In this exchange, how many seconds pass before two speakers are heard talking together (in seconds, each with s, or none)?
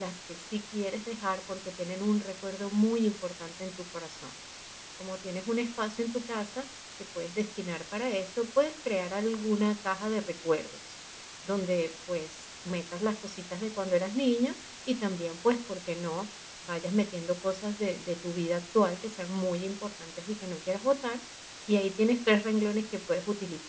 none